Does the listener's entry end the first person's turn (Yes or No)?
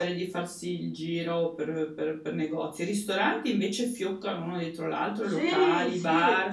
Yes